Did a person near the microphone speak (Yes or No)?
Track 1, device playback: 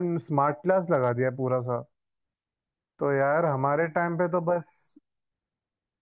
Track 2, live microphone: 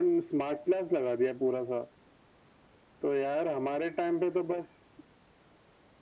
No